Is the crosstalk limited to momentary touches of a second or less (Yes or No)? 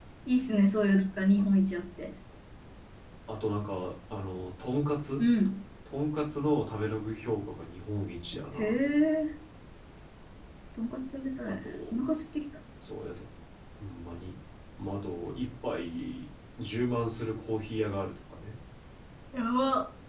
Yes